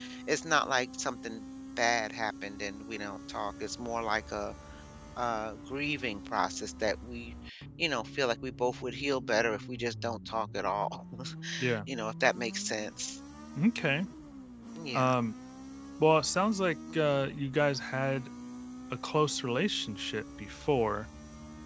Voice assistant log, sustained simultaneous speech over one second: none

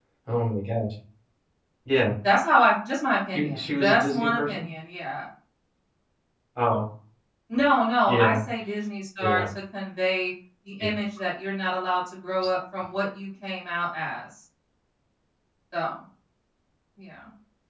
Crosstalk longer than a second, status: present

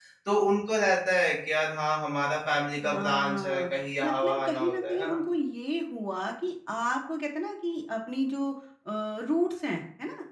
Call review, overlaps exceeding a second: present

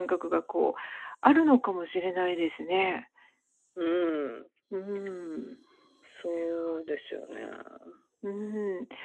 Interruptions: none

